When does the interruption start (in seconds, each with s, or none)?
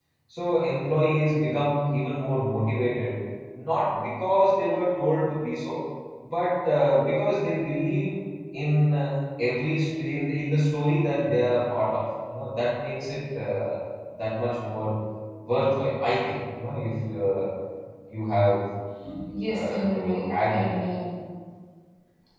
19.5 s